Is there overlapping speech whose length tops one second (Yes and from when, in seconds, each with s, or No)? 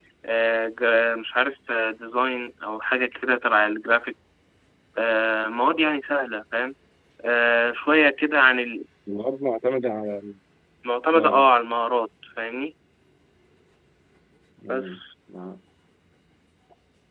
No